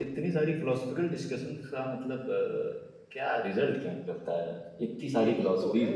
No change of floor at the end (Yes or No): No